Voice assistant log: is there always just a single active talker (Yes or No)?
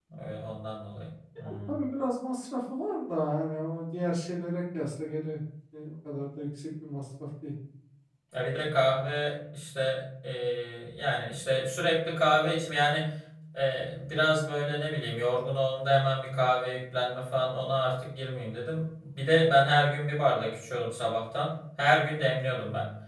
Yes